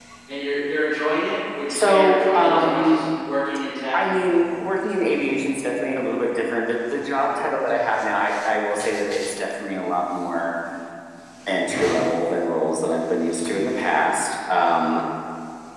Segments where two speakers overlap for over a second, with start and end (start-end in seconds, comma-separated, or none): 1.7-3.0